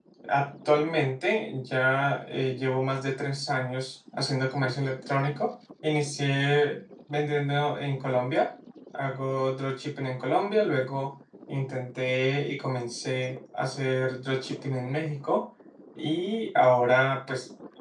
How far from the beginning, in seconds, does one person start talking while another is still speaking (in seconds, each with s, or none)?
none